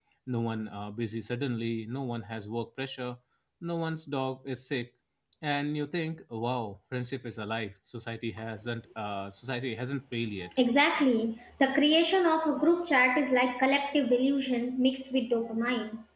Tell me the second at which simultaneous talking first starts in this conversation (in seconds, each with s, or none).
none